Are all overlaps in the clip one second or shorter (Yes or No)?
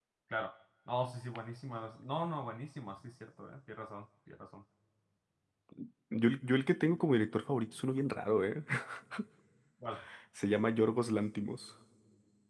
Yes